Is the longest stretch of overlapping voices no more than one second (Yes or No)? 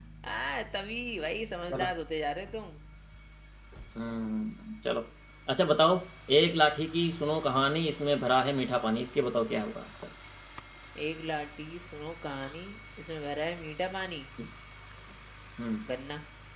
Yes